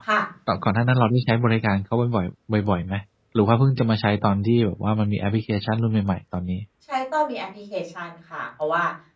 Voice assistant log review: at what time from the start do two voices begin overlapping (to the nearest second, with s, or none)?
none